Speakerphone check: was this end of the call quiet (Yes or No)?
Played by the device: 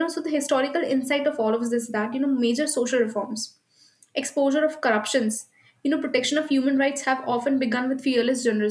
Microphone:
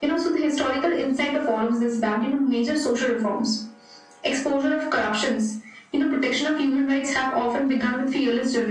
Yes